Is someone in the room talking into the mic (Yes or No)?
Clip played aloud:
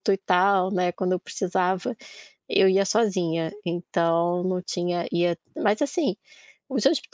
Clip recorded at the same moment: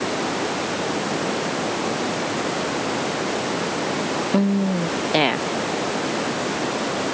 Yes